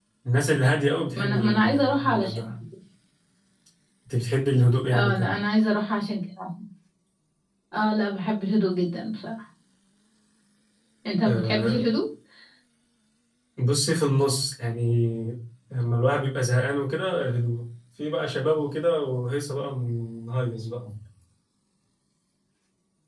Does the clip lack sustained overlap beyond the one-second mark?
No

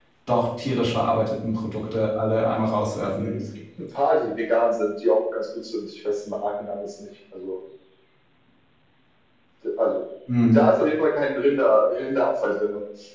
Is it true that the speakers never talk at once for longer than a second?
Yes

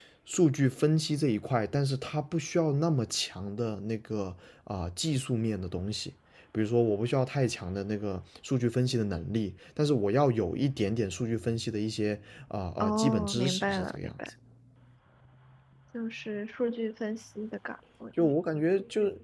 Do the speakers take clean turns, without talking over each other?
No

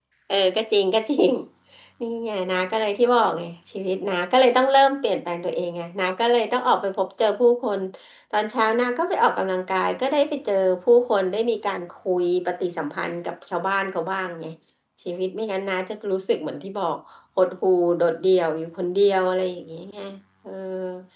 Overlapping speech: No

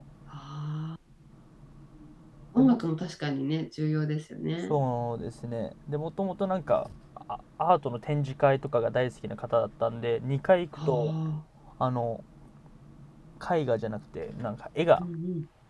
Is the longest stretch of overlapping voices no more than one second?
Yes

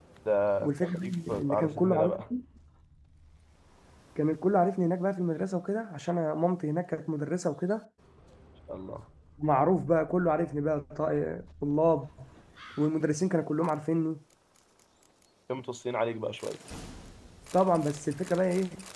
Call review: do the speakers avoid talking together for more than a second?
No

